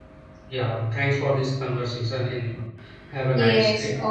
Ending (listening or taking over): taking over